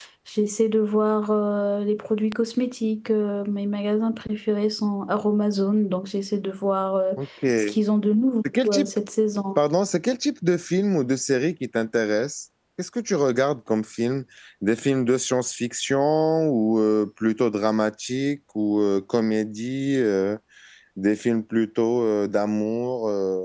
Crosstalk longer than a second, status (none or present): none